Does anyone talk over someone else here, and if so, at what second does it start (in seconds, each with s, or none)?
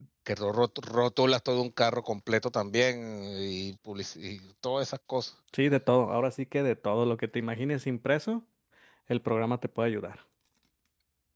none